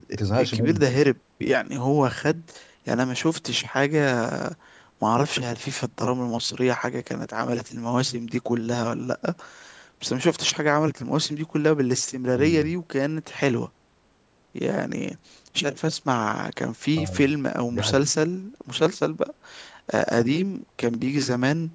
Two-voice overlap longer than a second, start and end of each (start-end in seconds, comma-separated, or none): none